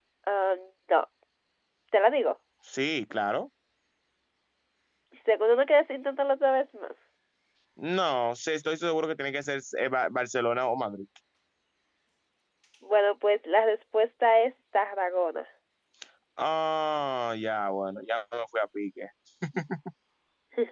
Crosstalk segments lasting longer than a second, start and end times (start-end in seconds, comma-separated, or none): none